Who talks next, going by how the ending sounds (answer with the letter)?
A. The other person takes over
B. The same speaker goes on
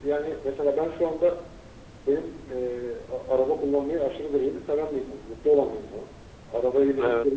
B